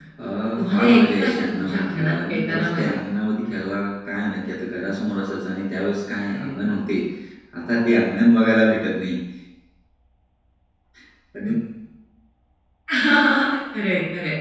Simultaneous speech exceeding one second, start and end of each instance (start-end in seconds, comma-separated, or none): 0.6-2.9